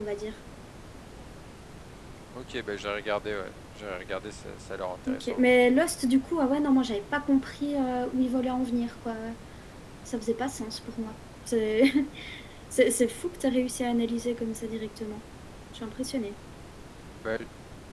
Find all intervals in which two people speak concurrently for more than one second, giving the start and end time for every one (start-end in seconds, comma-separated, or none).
none